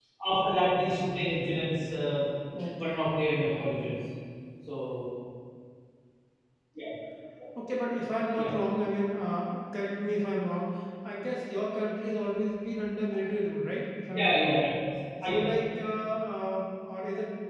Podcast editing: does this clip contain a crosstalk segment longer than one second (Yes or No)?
No